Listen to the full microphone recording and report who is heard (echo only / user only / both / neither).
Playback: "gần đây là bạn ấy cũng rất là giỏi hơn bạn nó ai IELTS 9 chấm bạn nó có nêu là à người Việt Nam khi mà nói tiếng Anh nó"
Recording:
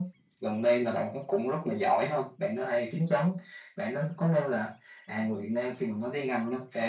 echo only